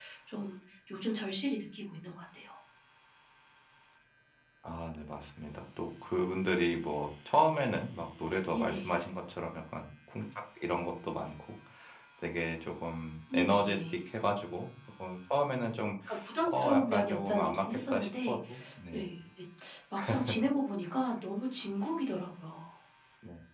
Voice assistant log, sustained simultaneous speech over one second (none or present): present